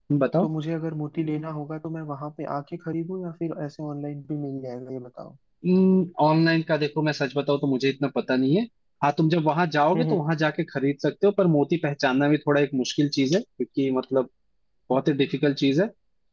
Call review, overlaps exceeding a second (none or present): none